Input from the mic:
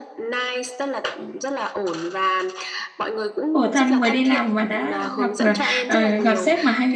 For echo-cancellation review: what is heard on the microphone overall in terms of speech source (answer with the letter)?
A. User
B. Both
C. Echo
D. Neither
B